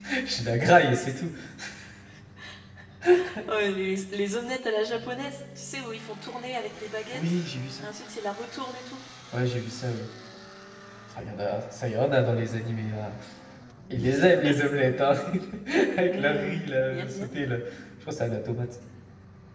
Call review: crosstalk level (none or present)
present